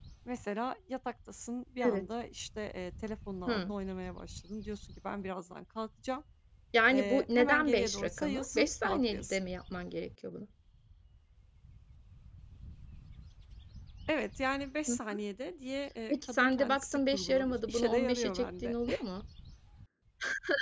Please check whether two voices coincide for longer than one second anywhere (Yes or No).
Yes